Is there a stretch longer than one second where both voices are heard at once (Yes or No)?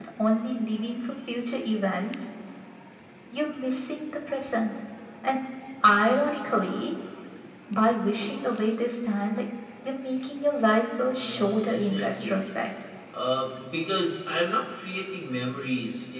Yes